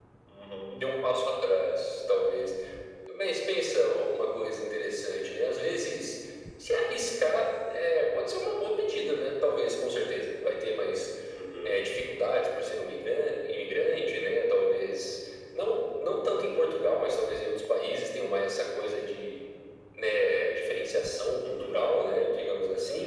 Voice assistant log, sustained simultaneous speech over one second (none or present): none